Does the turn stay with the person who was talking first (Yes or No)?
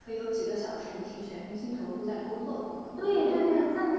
No